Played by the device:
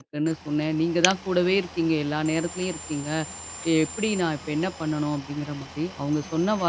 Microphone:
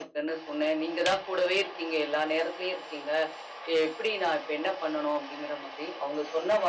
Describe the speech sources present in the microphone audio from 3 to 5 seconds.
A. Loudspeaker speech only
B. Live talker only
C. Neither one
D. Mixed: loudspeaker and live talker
A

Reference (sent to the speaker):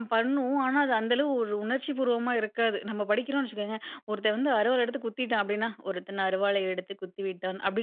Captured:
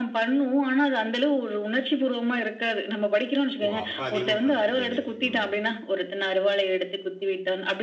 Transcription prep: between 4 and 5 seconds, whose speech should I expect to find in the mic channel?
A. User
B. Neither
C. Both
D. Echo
C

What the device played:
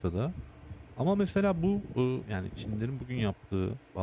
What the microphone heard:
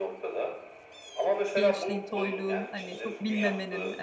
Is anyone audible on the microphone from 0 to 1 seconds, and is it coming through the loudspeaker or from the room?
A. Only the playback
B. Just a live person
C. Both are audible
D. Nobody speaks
A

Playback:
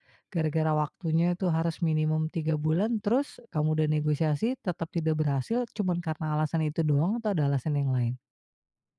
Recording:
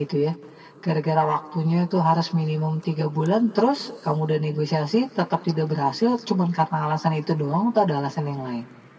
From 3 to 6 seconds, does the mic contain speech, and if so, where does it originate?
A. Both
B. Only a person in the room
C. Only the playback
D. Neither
C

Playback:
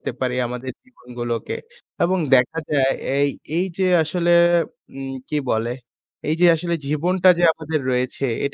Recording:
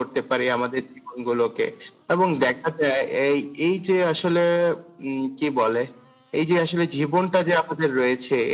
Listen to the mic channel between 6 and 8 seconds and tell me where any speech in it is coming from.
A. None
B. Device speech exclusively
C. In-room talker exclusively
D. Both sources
B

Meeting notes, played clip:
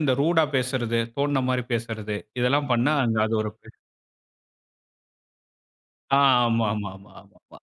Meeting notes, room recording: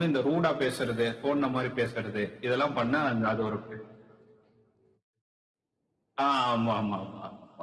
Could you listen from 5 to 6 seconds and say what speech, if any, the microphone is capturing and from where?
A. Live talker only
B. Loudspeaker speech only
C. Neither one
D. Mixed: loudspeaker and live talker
C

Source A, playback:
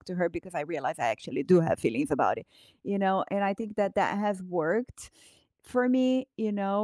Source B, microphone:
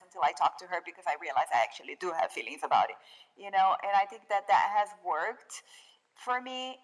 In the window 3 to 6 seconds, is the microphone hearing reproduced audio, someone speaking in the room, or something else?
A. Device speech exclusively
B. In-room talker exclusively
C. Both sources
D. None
A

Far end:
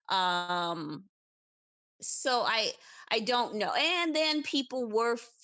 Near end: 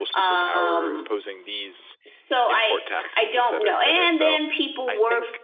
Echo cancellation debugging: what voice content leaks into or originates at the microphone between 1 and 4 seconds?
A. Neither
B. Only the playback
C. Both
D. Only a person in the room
C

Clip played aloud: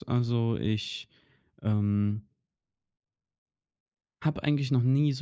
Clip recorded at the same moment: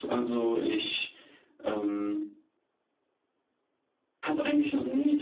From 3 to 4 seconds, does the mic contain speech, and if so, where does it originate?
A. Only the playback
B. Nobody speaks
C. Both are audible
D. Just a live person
B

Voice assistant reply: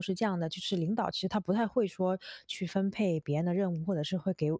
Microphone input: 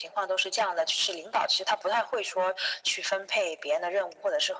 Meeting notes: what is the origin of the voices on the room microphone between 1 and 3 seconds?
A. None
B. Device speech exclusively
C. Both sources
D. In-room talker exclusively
B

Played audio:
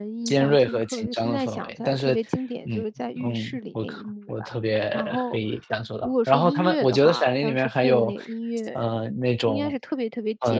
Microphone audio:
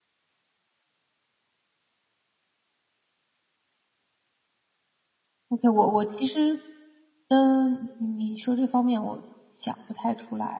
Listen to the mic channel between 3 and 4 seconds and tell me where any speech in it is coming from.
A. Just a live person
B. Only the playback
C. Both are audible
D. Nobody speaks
D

